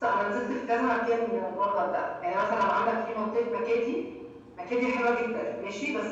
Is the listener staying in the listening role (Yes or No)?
Yes